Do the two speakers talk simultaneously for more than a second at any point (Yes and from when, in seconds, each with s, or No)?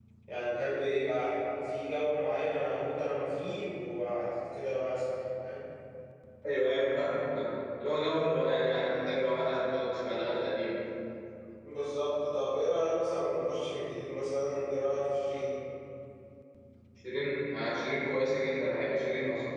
No